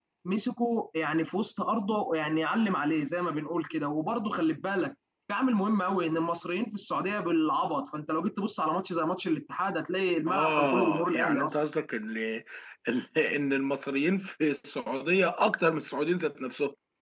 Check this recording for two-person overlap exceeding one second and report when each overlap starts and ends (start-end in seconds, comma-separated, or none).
10.3-11.6